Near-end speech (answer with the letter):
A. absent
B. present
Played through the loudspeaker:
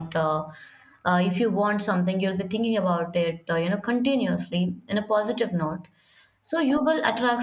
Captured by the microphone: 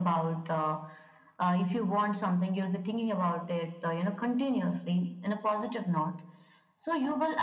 A